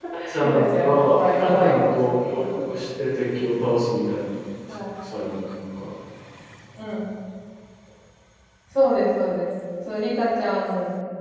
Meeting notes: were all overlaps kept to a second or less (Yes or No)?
No